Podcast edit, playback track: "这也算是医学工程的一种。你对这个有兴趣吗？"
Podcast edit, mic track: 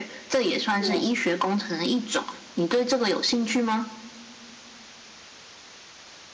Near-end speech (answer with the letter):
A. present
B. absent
A